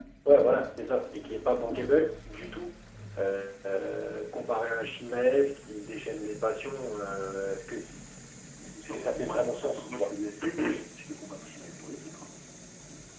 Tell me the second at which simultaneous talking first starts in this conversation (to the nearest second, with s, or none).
9 s